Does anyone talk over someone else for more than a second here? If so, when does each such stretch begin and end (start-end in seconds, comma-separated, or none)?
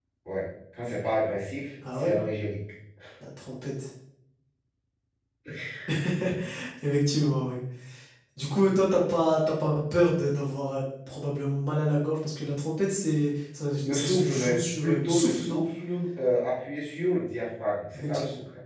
13.8-15.6